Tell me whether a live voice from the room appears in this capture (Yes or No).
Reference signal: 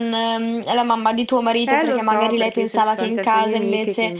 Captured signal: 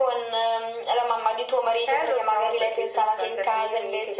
No